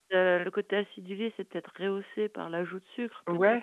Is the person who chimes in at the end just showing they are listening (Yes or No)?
No